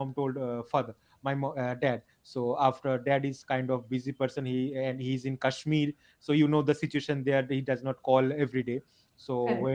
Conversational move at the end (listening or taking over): listening